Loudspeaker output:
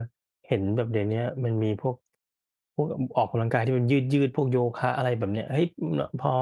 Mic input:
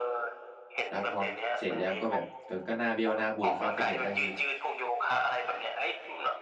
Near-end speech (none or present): present